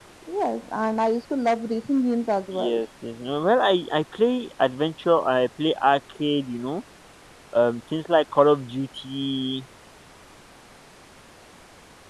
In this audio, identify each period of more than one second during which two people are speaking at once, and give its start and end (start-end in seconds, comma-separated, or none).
none